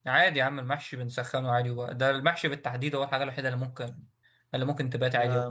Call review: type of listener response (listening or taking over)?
taking over